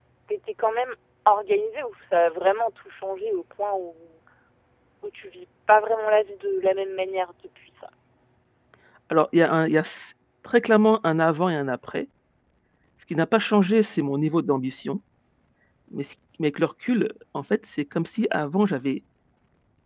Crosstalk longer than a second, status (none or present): none